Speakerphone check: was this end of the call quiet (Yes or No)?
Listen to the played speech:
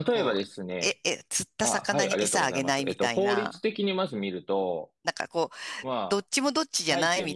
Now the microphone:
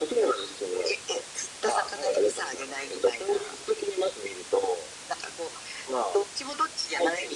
Yes